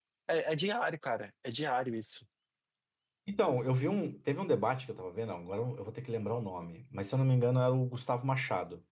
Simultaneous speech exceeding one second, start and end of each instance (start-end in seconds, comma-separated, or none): none